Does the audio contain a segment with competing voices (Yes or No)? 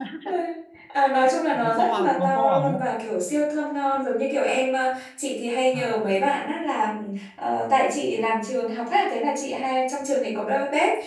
Yes